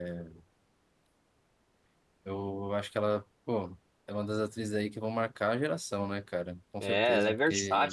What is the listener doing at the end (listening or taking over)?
taking over